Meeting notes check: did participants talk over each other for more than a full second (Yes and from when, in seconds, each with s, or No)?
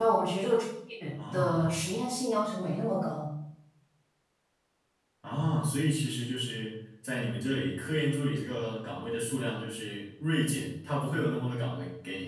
No